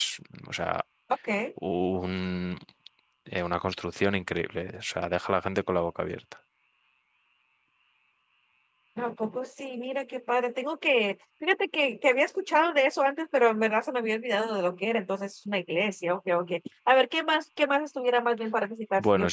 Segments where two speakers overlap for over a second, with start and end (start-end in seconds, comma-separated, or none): none